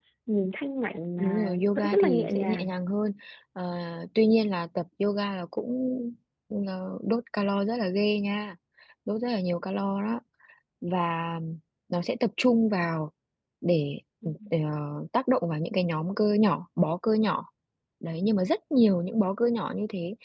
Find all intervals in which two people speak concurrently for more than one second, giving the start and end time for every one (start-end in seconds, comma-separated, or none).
1.2-2.7